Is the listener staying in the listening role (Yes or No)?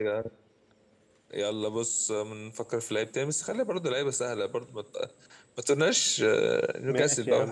No